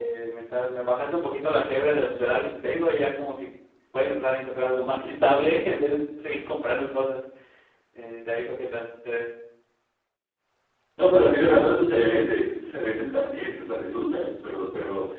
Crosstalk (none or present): none